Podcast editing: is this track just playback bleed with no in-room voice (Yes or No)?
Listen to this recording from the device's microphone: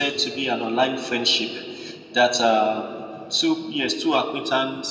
Yes